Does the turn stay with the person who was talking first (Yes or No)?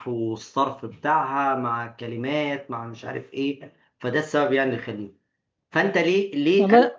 Yes